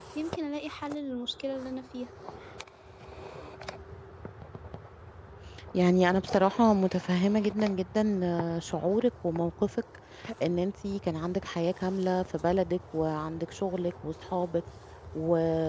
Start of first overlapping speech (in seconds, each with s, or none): none